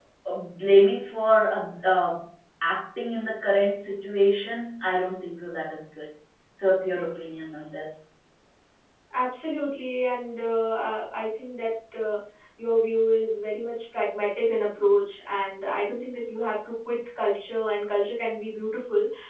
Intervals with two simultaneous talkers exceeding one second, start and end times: none

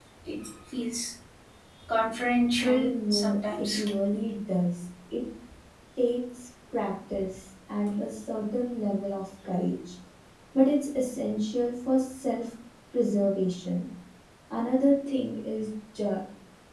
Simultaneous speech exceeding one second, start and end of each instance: 2.6-3.8

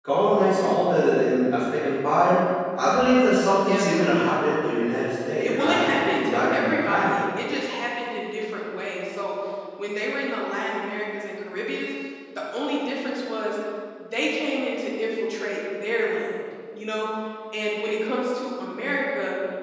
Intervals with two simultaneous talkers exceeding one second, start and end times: 5.4-7.2

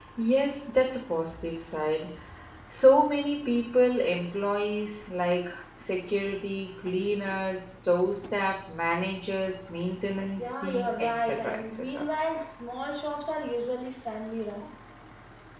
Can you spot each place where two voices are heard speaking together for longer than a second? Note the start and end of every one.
10.4-11.8

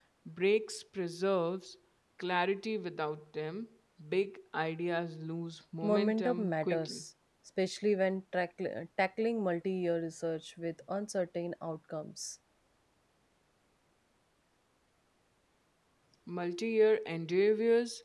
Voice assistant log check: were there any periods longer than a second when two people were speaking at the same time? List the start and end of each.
5.8-7.0

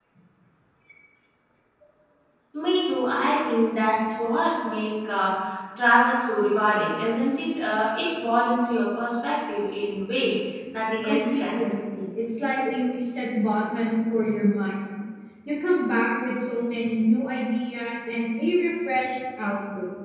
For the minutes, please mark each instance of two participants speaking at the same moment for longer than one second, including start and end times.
none

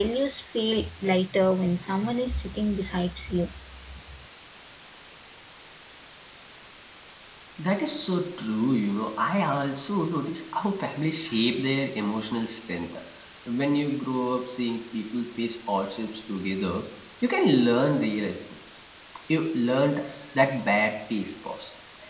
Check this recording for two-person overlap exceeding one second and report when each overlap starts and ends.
none

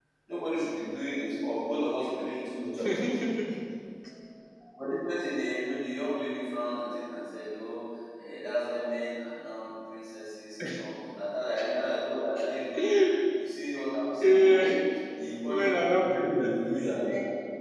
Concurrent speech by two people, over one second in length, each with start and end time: 15.4-16.8

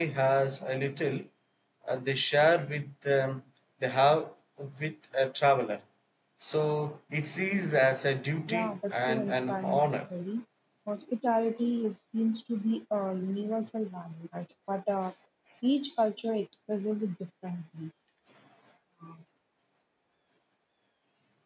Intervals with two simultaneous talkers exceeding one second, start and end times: 8.5-9.9

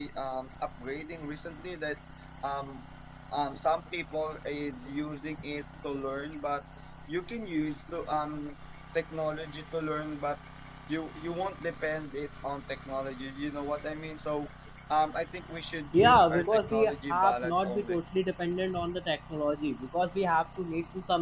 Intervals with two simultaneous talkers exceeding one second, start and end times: 15.9-18.0

